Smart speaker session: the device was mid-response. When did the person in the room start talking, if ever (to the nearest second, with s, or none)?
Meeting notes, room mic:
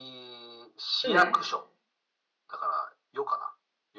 1 s